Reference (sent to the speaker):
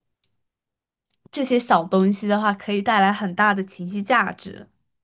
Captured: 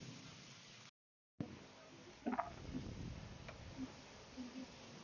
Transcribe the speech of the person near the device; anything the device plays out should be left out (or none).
none